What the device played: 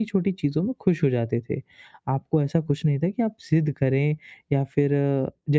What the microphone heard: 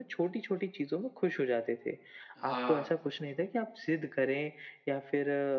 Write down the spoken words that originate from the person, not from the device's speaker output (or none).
हाँ।